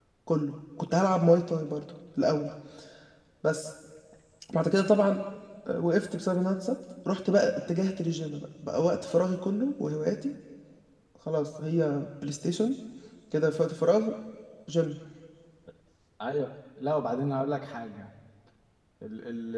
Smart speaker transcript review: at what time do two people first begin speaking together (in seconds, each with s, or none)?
none